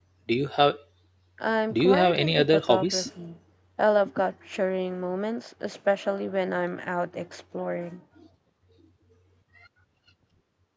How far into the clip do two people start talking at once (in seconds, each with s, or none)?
1.7 s